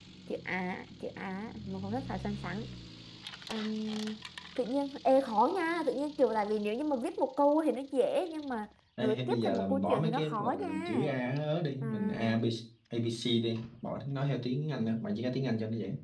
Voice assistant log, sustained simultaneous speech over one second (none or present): present